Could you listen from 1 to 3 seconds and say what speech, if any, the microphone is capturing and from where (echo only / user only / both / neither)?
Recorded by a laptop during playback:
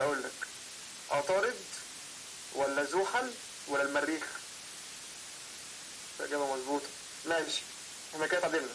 echo only